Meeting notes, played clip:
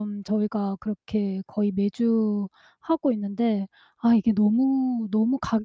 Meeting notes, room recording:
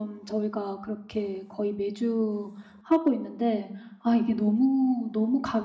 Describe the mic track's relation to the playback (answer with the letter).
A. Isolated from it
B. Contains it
B